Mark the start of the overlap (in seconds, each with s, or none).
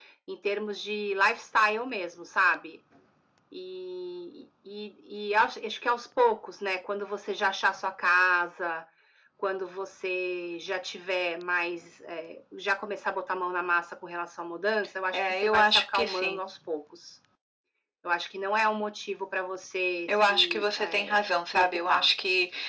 15.1 s